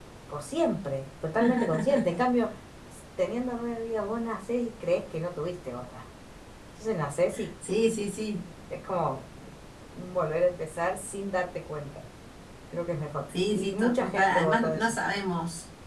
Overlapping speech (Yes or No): Yes